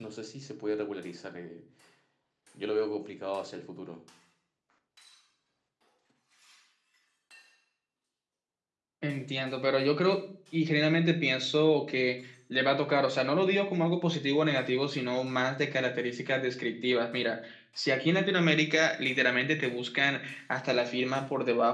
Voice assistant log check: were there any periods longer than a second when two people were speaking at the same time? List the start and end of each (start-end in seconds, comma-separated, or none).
none